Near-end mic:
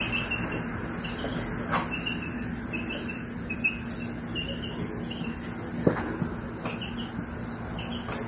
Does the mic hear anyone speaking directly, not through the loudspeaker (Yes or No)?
No